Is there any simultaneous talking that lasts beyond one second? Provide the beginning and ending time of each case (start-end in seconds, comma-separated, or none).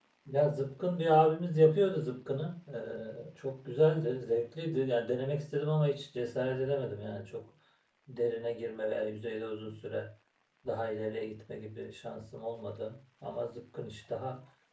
none